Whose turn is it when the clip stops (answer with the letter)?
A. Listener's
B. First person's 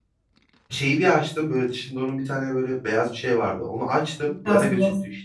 B